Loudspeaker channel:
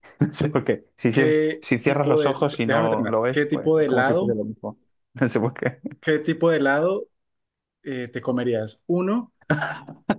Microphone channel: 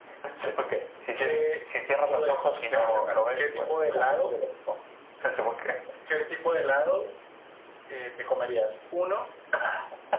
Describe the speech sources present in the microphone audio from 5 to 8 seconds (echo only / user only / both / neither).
echo only